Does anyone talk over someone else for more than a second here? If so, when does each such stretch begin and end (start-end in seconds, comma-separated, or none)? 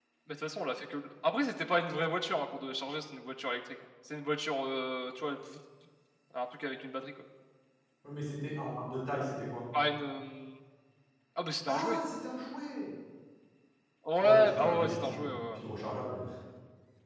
14.2-15.6